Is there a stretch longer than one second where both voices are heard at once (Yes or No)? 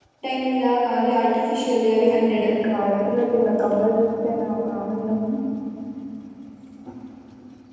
No